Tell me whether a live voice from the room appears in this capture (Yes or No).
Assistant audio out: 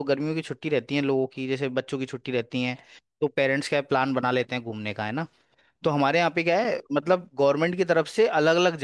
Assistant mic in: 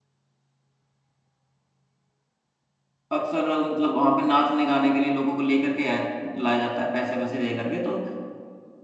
Yes